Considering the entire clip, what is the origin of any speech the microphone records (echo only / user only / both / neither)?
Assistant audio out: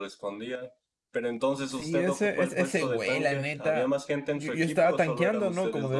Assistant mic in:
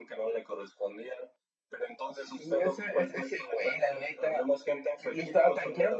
echo only